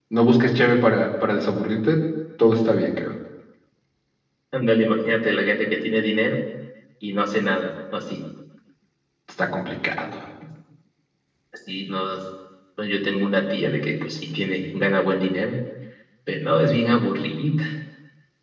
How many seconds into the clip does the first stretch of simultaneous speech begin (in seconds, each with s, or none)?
none